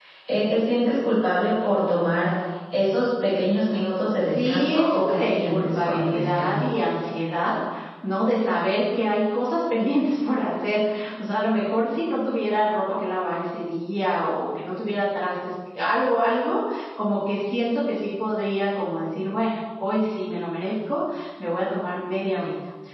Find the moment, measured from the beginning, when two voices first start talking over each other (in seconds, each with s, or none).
4.2 s